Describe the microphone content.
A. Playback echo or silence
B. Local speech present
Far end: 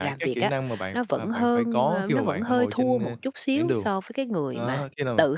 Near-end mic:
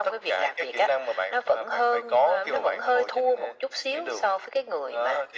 A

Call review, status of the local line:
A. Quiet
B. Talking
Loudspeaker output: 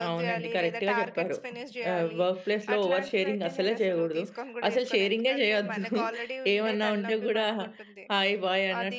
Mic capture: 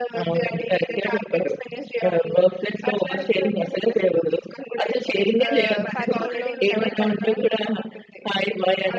B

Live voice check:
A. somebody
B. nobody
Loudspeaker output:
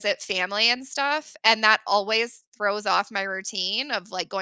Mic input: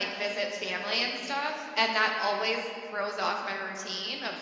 B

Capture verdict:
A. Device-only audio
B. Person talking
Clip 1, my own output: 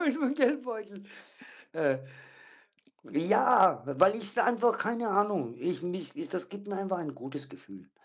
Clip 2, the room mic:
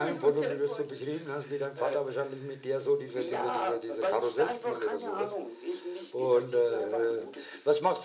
B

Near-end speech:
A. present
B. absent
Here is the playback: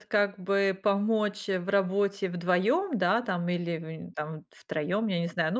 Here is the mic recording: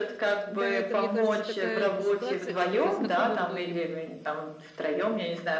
A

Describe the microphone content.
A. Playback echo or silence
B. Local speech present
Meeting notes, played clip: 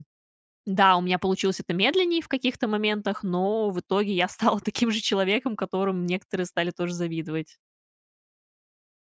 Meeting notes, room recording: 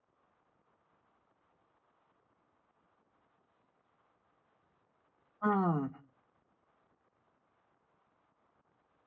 B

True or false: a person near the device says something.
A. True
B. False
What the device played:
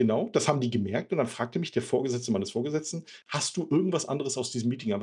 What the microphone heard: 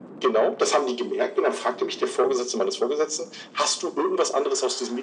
B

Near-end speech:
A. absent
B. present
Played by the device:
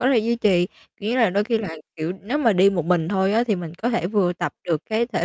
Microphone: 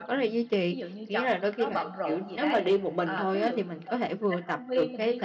B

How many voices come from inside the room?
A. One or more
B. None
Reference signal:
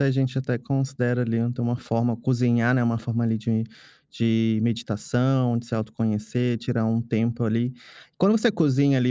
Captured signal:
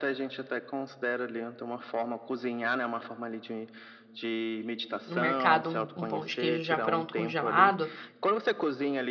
A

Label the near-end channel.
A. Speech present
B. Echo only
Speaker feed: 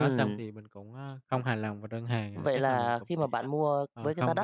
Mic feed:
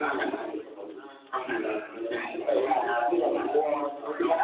B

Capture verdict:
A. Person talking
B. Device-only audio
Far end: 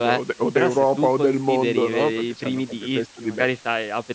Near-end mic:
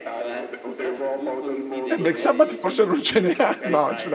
A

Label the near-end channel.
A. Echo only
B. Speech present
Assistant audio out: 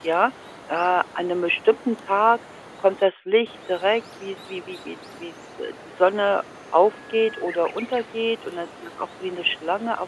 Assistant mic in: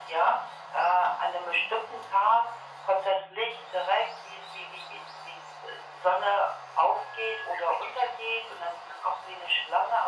A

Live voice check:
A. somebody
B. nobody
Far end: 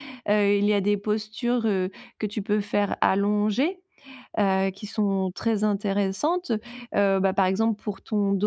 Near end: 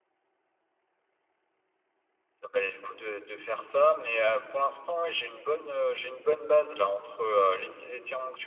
A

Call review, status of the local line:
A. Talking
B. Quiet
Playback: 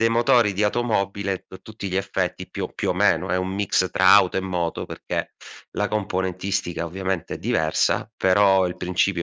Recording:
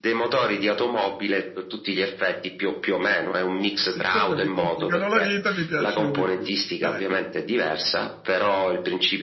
A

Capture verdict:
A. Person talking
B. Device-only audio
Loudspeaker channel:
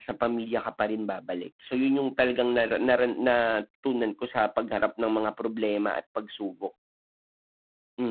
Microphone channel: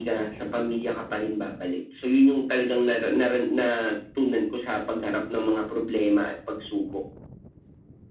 B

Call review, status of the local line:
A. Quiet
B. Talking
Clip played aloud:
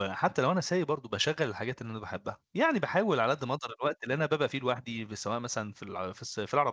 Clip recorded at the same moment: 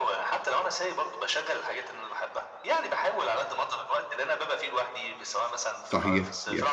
B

